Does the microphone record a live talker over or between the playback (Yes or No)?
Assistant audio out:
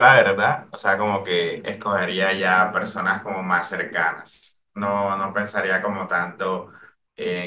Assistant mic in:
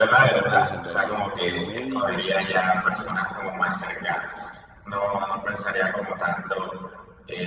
Yes